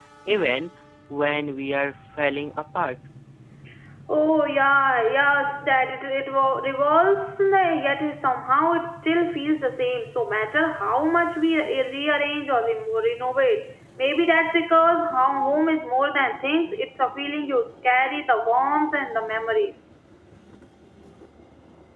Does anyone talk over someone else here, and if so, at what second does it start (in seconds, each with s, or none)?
none